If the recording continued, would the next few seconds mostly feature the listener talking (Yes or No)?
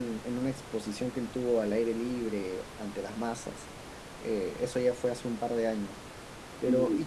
No